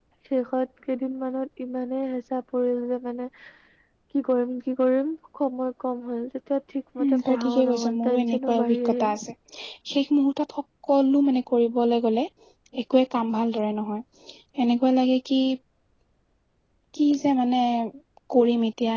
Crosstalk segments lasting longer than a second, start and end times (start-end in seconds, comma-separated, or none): 7.0-9.2